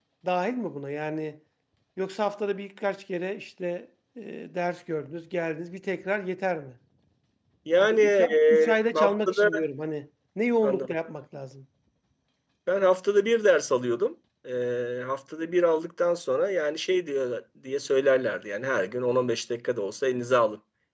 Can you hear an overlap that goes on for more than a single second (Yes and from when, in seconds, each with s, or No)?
Yes, from 7.8 s